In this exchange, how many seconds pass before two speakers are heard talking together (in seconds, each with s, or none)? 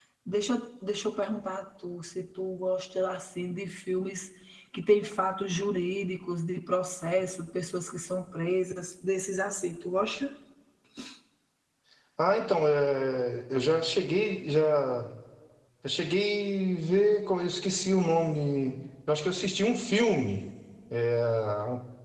none